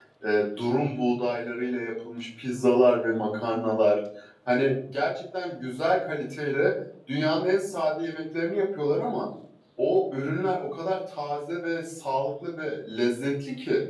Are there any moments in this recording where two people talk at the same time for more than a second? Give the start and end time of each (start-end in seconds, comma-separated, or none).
none